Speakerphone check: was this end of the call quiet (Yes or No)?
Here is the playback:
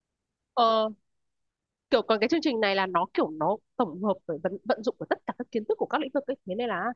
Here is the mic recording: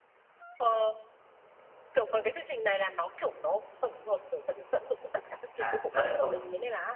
No